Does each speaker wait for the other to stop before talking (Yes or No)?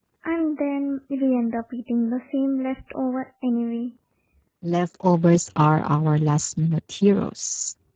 Yes